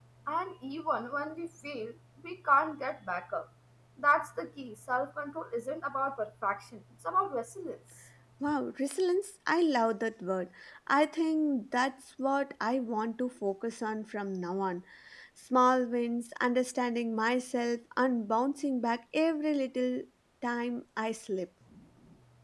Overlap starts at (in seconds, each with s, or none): none